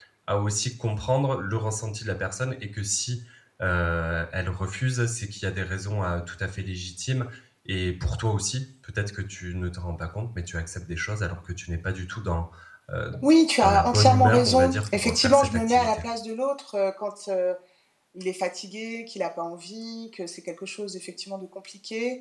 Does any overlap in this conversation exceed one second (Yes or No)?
Yes